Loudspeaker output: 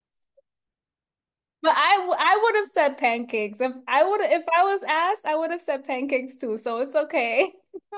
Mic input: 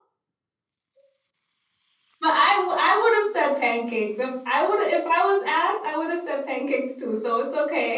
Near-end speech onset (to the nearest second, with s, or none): none